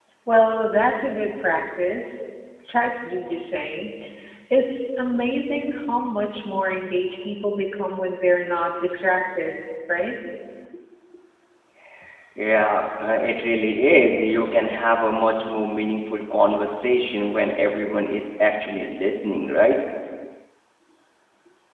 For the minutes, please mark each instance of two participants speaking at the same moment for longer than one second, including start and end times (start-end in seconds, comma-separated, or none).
none